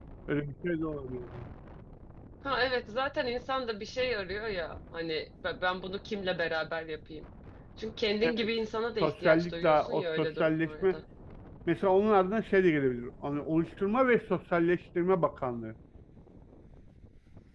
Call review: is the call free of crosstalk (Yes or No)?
No